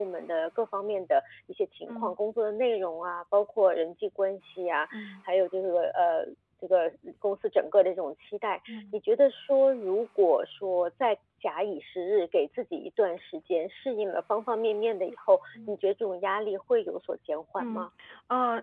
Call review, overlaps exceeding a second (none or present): none